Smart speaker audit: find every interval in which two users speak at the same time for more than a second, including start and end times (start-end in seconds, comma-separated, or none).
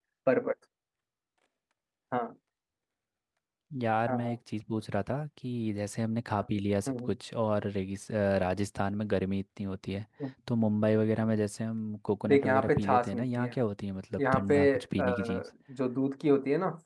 12.3-13.6, 14.2-15.4